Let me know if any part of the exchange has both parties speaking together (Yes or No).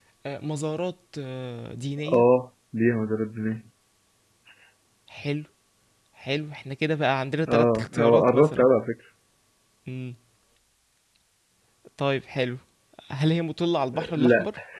Yes